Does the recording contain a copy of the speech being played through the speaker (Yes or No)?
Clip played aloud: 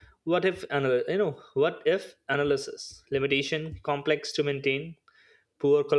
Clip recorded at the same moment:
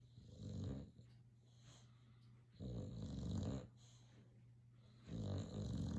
No